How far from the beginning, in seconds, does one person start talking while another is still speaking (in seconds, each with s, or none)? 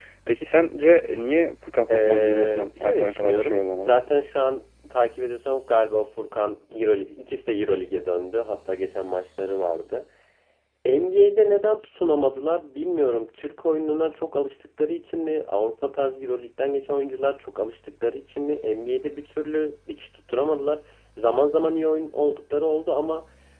1.9 s